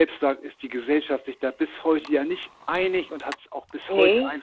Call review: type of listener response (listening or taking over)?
listening